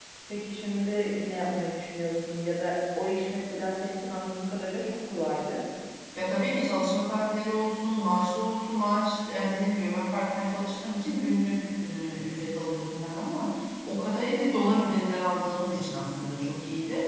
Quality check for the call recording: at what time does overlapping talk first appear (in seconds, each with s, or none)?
none